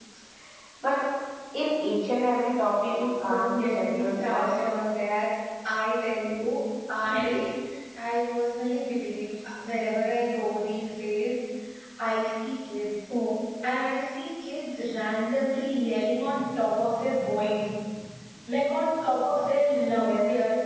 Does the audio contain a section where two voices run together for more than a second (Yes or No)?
Yes